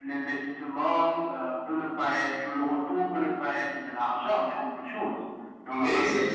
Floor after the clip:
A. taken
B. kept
A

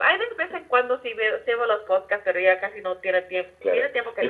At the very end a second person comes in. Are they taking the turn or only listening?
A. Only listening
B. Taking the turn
B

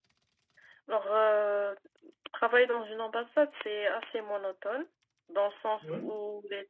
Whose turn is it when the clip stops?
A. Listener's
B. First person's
B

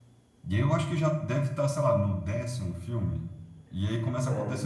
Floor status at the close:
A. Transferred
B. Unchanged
B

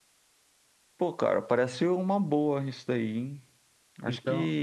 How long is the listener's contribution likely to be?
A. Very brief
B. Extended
A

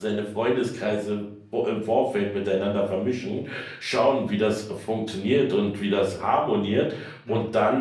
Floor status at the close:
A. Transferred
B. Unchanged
B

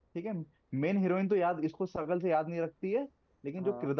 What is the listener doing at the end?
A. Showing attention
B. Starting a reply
A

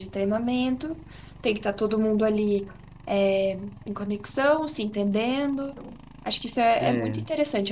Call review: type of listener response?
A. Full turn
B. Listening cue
B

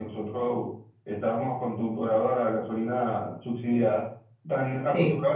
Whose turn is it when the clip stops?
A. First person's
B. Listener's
A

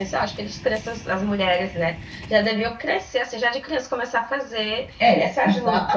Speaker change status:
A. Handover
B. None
A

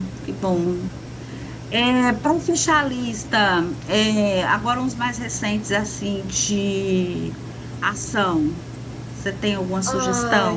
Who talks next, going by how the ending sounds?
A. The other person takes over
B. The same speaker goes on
A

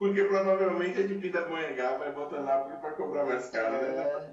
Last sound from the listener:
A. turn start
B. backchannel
A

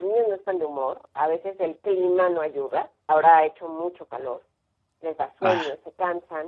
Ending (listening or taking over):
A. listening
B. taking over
A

